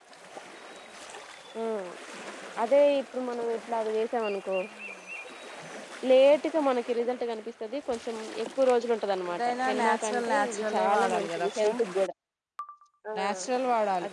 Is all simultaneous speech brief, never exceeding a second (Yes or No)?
No